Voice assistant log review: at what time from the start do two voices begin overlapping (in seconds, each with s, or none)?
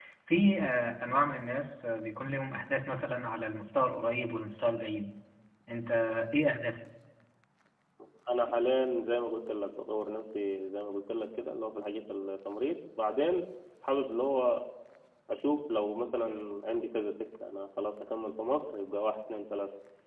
none